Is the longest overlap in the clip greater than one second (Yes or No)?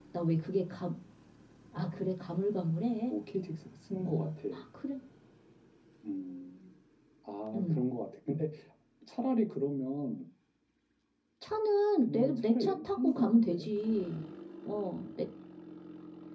Yes